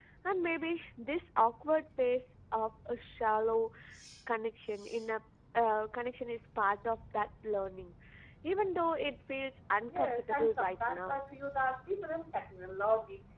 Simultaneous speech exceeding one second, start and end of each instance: 9.9-11.2

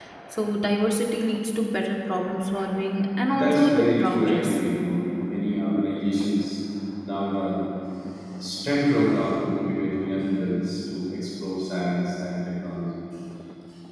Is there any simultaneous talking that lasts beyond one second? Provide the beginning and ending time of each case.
3.3-4.6

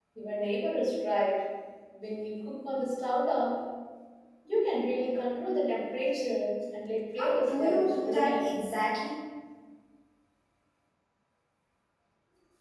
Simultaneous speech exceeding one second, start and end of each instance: 7.2-8.5

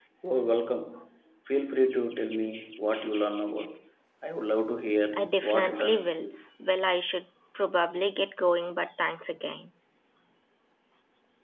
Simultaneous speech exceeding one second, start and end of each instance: 5.2-6.4

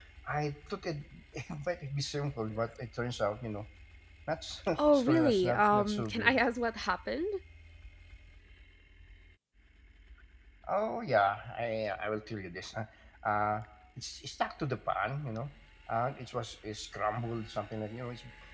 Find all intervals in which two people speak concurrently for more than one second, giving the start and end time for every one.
4.8-6.4

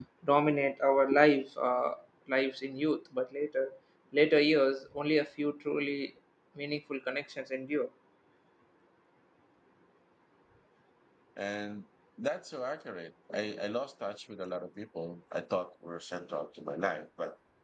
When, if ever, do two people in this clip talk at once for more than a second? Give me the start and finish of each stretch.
none

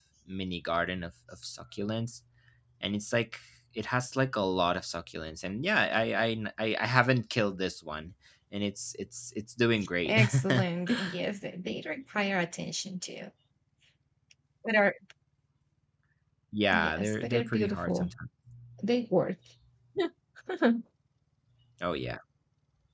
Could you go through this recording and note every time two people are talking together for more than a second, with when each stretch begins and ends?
16.7-18.1

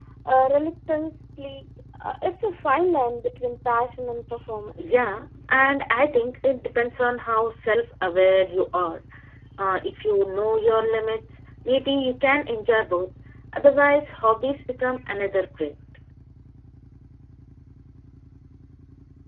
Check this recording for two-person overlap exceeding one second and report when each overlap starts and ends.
none

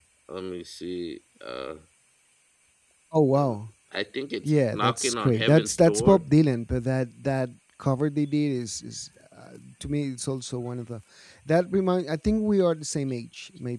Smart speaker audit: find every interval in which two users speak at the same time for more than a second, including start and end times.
4.4-6.2

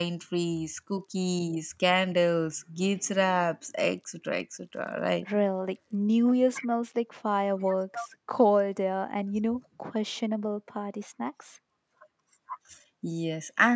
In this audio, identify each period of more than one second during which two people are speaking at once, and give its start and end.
none

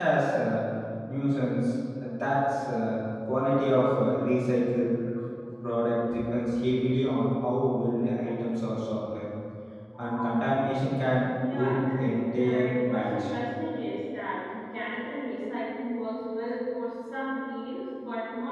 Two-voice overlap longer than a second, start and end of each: 11.5-13.2

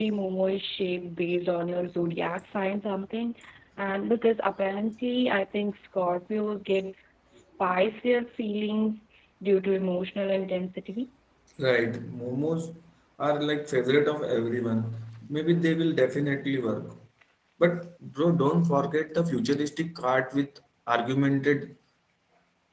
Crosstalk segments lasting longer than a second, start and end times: none

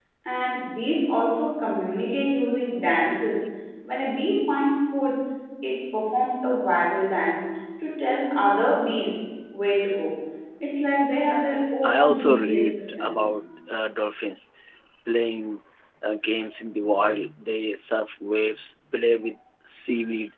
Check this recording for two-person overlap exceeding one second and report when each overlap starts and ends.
11.8-13.2

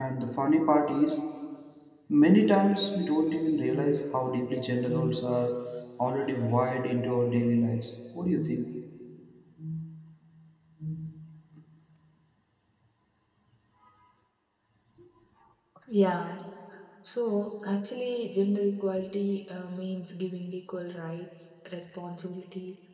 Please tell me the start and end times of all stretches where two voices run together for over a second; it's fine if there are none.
none

